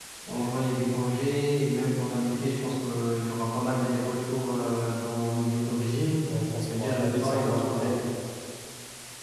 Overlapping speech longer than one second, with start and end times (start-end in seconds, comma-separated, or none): 6.7-7.9